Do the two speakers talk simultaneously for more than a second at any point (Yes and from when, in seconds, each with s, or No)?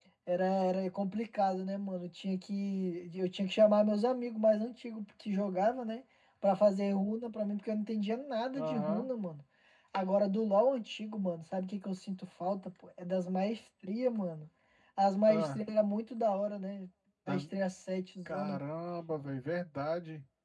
No